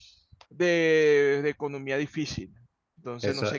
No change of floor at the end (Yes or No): No